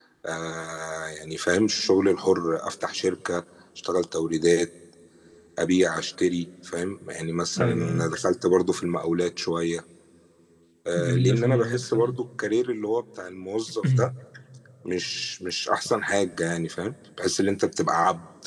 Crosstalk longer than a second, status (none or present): present